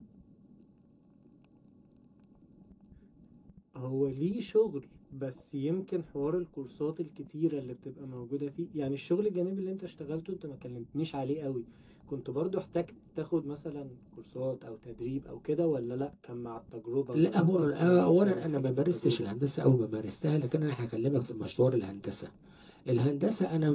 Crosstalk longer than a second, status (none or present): present